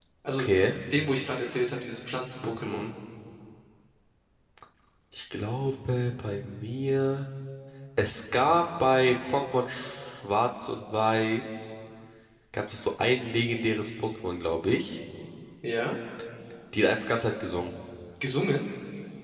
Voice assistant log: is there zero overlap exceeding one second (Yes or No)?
Yes